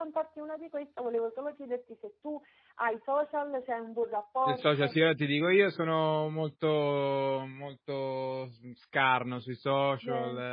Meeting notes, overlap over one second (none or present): none